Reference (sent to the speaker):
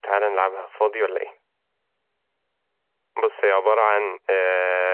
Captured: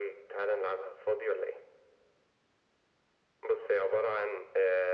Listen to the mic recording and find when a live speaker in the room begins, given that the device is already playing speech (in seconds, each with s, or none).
none